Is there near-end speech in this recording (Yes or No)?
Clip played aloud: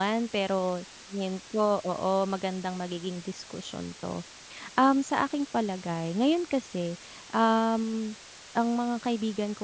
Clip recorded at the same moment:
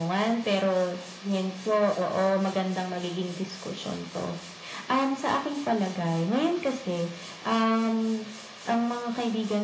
No